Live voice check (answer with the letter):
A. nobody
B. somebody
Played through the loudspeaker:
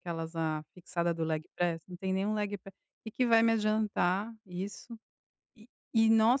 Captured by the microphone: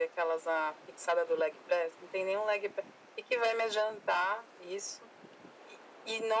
A